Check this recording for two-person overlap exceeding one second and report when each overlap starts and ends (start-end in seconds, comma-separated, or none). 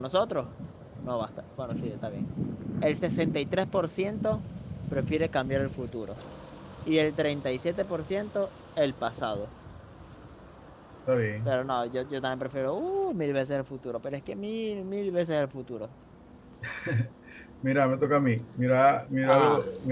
none